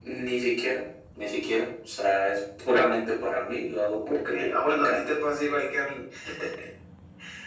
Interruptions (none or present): present